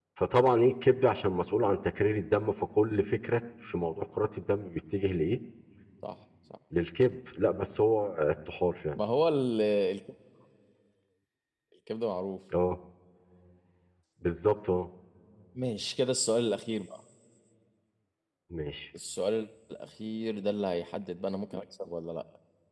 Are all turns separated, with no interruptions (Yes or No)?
Yes